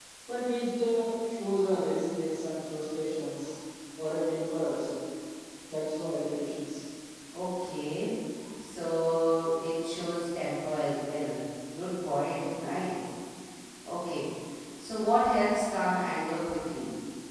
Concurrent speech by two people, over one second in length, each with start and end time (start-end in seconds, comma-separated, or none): none